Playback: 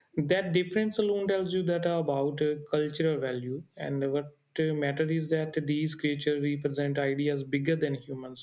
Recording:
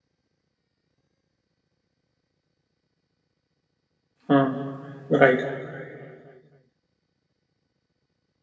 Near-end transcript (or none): Hmm, right?